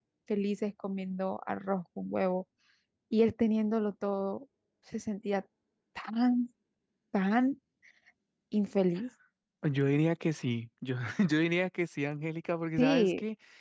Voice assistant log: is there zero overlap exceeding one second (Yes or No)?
Yes